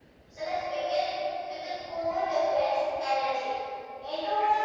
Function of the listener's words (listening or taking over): listening